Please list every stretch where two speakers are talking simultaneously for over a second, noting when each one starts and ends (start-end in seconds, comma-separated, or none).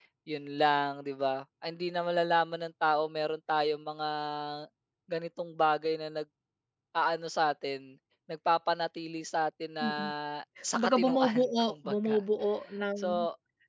10.7-12.2